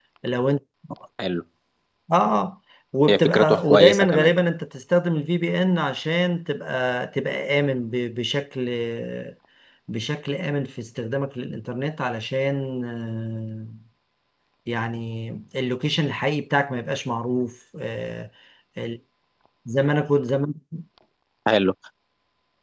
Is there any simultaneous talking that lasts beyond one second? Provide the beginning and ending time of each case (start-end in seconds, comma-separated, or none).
3.1-4.3